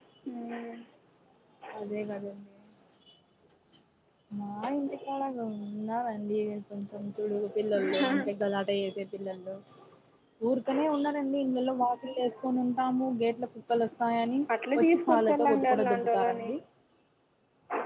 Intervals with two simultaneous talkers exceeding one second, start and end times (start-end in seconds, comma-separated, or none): 14.8-16.5